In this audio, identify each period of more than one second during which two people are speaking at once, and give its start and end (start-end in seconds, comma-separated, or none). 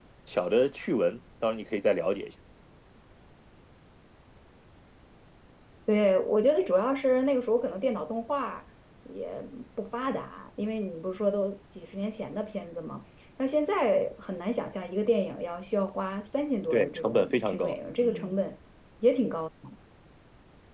16.7-18.4